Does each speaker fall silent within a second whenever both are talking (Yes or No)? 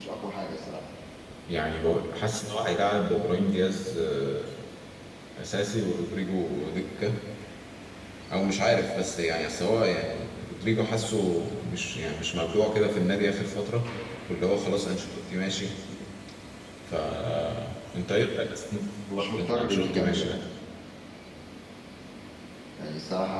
No